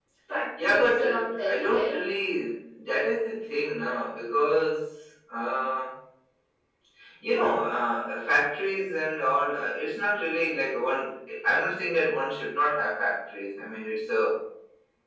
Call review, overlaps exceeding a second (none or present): present